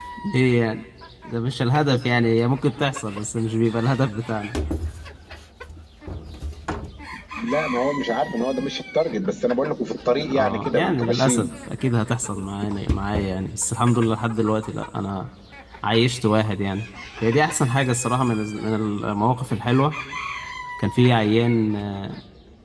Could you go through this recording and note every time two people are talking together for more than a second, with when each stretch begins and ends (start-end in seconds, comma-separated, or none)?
10.2-11.5